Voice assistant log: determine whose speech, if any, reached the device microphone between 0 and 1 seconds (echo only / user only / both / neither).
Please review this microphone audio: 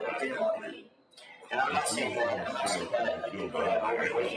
echo only